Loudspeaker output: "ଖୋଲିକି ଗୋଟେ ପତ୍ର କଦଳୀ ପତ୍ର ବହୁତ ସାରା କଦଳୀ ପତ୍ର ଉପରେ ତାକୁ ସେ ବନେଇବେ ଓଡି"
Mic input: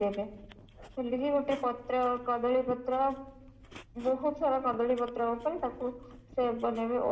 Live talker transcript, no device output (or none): none